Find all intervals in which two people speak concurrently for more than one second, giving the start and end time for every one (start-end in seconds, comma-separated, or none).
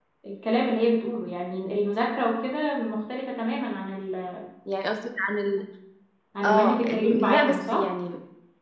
6.4-7.9